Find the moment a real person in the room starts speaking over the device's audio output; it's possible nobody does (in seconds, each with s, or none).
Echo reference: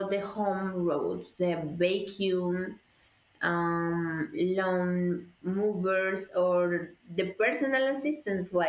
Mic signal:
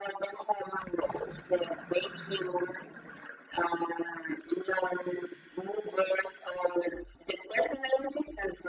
none